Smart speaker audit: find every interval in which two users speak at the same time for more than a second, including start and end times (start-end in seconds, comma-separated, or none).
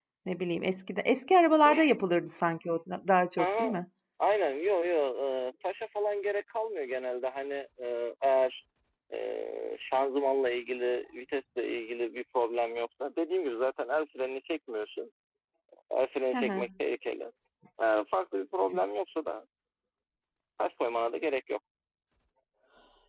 none